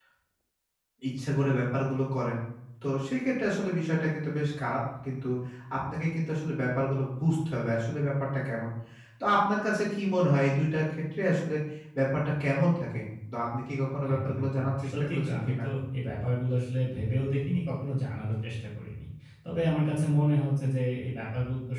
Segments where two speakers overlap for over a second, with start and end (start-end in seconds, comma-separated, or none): 14.1-15.6